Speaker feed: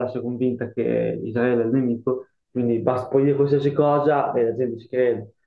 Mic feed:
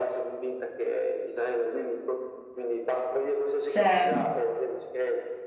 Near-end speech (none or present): present